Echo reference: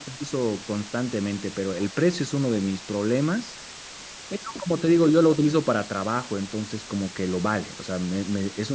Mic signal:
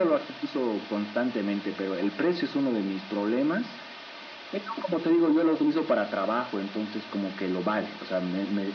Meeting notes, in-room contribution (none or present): none